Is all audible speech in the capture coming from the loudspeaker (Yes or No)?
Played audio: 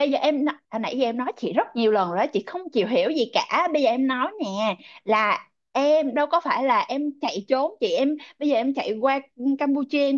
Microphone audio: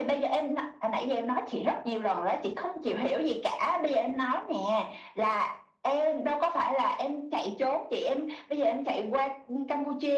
Yes